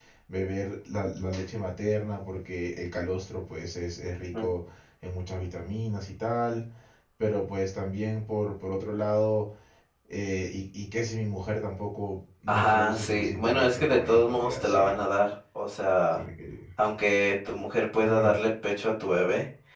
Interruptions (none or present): present